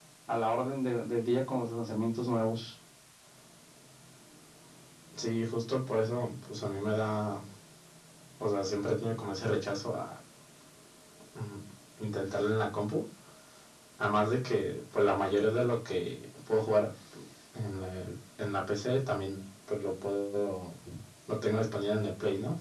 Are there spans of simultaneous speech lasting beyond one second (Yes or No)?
No